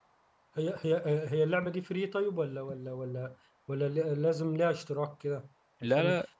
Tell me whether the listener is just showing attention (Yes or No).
Yes